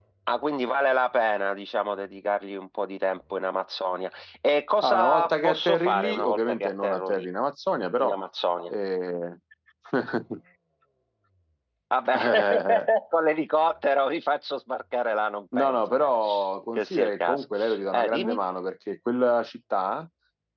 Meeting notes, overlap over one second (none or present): present